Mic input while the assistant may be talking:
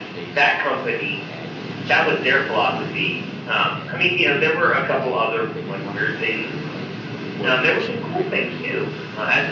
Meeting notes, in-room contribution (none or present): present